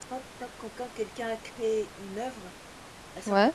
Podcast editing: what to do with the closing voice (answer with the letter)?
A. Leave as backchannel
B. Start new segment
A